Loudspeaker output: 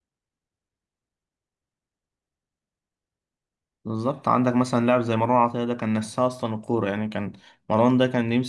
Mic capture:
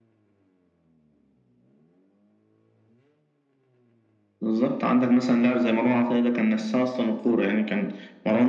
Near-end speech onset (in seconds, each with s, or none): none